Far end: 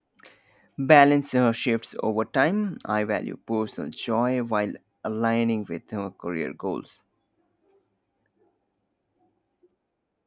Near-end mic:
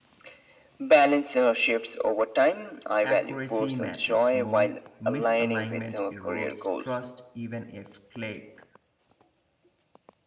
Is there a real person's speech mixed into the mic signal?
Yes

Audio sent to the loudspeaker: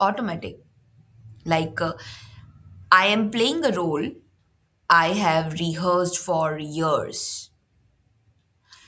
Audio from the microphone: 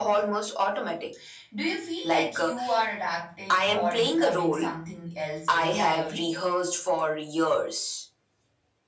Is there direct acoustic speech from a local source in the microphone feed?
Yes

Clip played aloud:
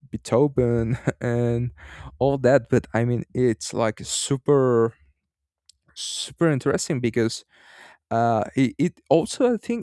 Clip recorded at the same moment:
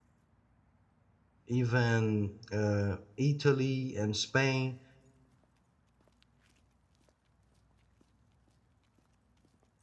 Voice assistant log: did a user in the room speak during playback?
Yes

